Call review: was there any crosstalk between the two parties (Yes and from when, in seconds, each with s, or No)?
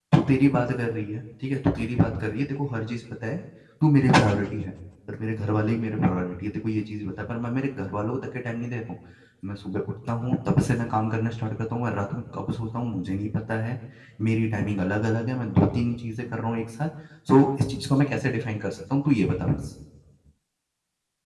No